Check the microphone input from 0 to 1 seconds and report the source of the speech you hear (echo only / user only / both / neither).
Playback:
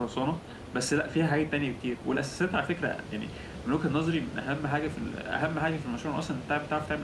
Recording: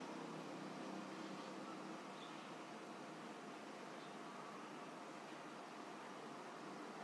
neither